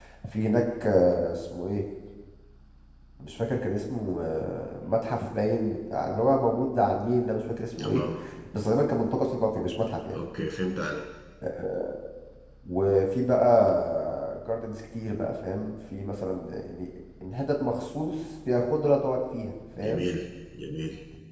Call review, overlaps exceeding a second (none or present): none